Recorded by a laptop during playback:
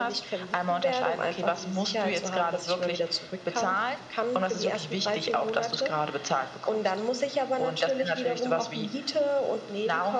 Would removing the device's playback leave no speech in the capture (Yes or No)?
Yes